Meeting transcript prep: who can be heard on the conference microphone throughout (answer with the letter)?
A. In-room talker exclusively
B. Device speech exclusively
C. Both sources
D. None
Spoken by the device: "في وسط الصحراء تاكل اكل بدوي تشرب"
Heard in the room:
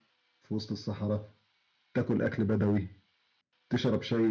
B